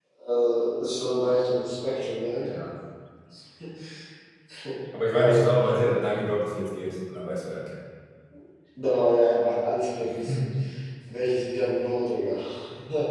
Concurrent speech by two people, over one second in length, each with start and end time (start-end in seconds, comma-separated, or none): none